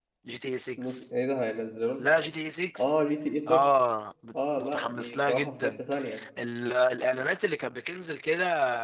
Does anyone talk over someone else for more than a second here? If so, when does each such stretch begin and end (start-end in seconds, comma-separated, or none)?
4.6-5.8